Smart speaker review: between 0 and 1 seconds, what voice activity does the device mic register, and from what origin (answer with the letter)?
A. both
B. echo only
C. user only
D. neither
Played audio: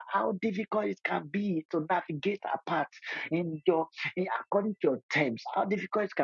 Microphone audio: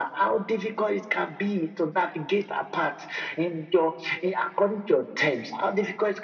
B